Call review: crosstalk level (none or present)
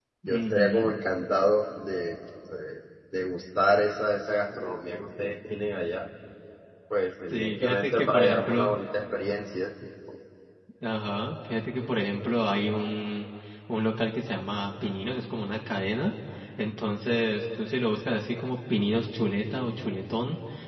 present